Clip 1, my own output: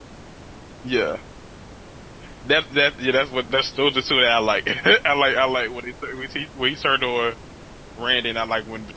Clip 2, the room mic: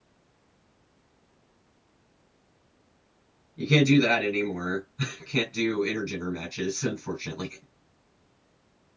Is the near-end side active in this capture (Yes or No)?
Yes